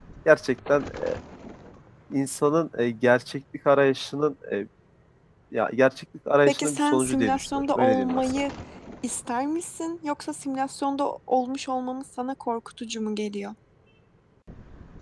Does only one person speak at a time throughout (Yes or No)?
No